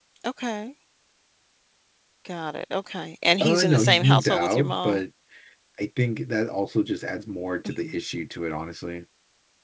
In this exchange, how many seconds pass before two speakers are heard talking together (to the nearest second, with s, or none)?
3 s